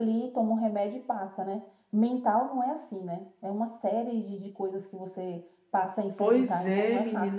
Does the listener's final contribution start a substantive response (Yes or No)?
Yes